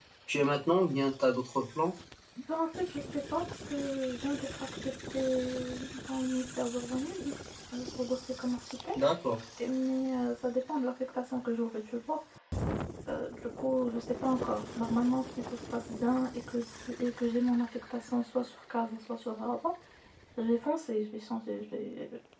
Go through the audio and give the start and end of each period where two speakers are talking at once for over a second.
none

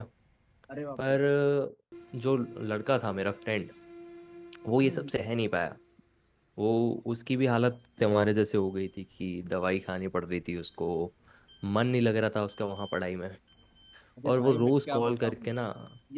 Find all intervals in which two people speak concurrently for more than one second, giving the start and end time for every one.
14.2-15.5

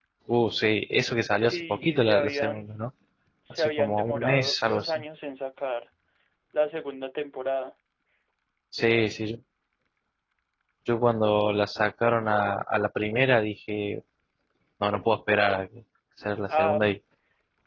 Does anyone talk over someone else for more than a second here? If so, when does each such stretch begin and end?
1.4-2.7, 3.5-5.0

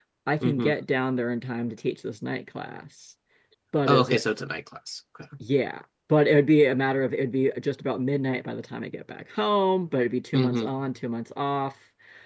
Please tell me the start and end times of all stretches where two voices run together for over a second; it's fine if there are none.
none

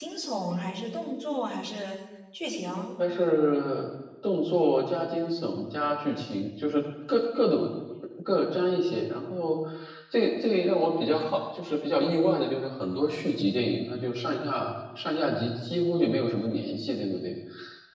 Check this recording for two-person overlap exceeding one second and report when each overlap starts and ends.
none

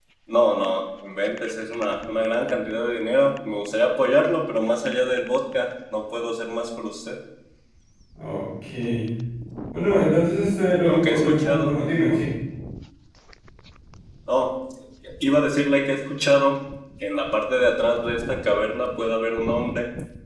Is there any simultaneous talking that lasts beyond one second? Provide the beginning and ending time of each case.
10.9-12.2

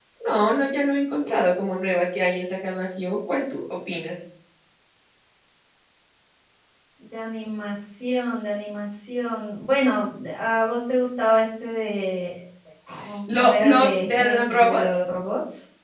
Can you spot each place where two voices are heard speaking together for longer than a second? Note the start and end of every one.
13.3-14.8

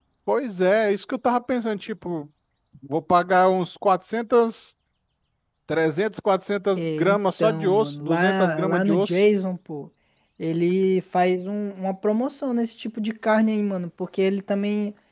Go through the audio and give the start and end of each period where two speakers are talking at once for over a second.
6.8-9.2

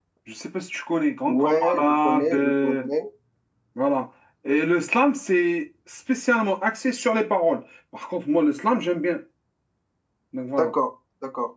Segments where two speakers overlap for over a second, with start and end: 1.3-2.8

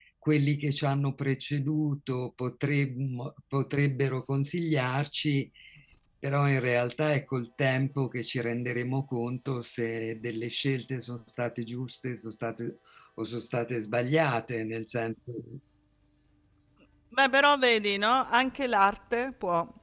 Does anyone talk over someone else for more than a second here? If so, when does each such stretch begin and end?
none

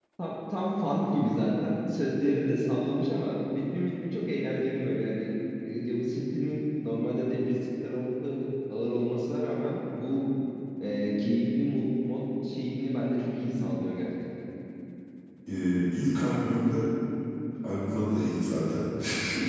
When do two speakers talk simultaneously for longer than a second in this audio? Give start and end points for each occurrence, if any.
none

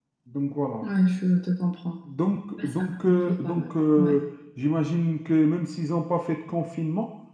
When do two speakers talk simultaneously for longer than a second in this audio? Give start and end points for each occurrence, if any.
2.6-4.2

